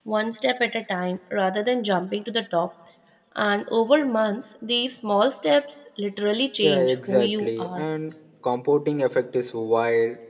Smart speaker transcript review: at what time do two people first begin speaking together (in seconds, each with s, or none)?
6.6 s